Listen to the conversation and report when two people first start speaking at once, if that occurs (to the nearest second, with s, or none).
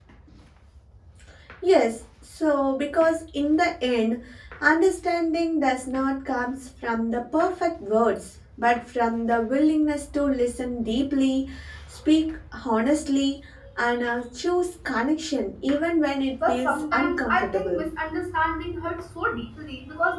16 s